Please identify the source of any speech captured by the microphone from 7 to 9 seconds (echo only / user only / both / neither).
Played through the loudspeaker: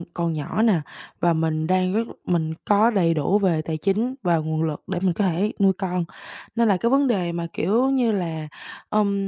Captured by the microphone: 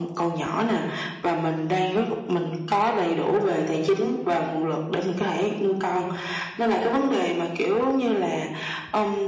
echo only